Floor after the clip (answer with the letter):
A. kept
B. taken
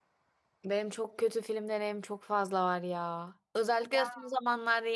A